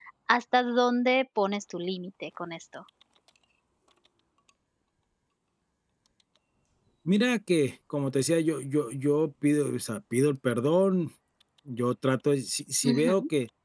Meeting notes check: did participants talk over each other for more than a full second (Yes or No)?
No